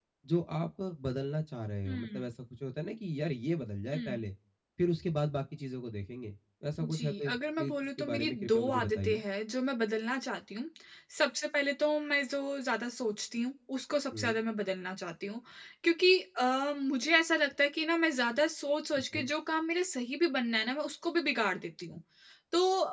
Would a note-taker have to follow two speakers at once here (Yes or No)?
Yes